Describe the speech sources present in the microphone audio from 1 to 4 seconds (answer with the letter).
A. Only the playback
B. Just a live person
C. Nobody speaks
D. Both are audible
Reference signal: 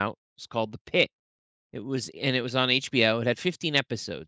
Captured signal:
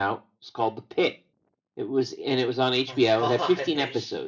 D